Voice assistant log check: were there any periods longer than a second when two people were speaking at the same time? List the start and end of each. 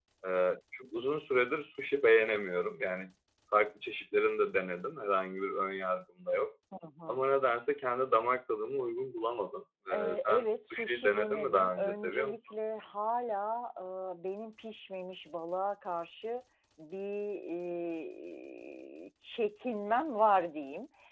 9.9-12.4

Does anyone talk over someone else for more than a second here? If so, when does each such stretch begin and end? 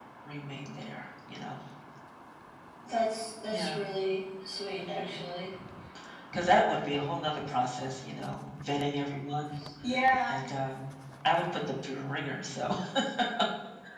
none

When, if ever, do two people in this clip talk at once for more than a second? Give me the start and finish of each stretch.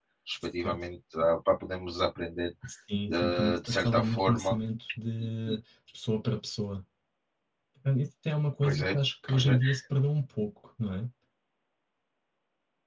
3.1-4.5

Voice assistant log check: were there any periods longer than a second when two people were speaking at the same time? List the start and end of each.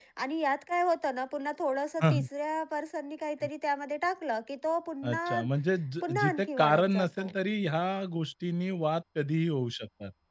6.0-7.3

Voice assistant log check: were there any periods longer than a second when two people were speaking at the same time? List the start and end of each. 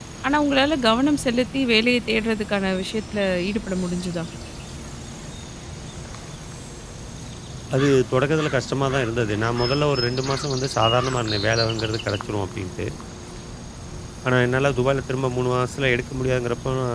none

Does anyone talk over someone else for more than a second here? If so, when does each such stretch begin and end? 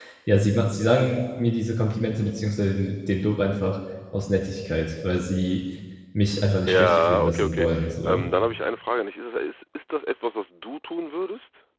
6.7-8.2

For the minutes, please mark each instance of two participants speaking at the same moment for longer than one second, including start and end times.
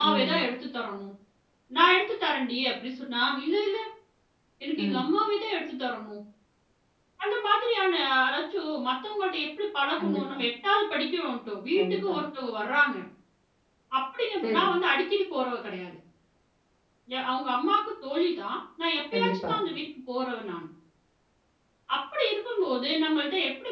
none

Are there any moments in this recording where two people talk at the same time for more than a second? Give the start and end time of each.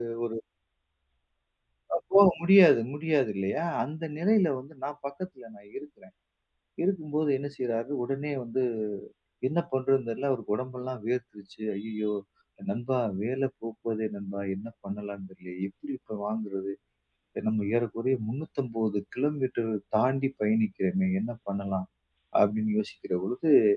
none

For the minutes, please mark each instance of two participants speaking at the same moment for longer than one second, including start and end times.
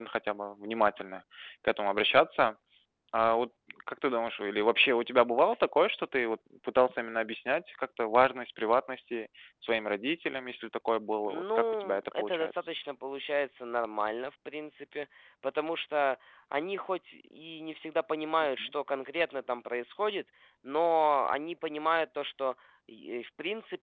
11.2-12.7

